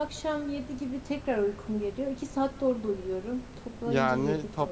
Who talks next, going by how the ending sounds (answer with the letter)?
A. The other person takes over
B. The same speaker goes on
A